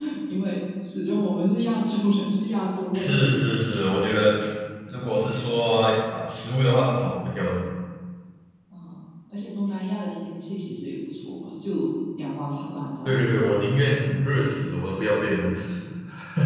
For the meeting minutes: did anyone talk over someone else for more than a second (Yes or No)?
No